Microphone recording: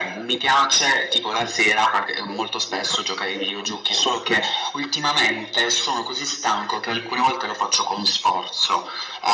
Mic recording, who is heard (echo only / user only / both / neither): echo only